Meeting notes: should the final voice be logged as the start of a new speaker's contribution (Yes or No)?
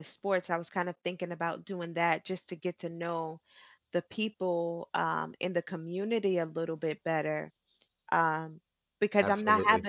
No